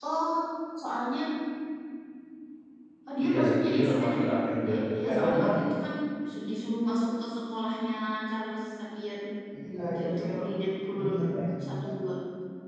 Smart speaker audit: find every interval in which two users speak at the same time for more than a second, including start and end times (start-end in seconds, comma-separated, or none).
3.2-5.7